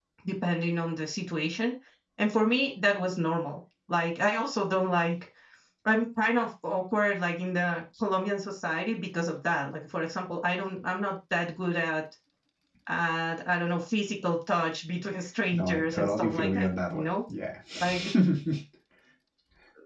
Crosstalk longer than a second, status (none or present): present